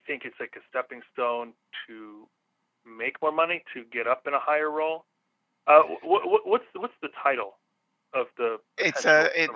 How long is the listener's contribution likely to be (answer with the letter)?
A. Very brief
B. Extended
B